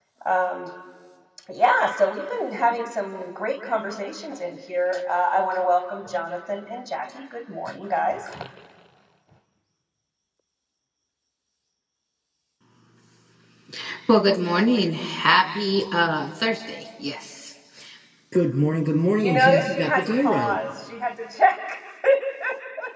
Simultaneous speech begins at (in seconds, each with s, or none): 19.2 s